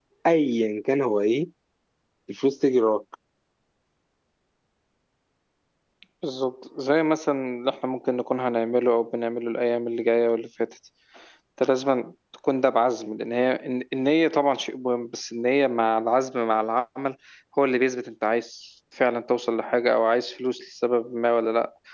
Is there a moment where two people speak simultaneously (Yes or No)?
No